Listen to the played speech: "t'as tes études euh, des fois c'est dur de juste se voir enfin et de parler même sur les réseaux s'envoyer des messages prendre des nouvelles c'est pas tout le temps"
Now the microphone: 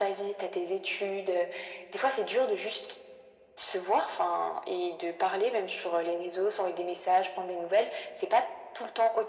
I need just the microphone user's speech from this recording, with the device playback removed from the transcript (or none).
none